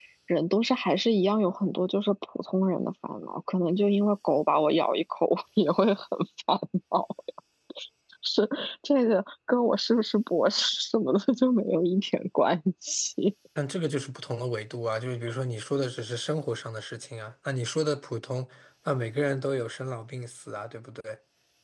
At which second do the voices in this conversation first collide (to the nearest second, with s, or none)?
none